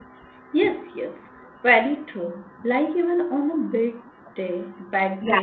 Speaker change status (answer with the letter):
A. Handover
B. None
B